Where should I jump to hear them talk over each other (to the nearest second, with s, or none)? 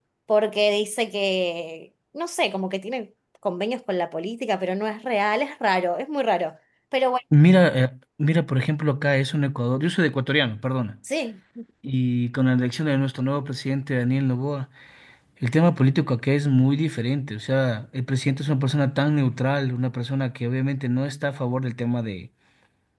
none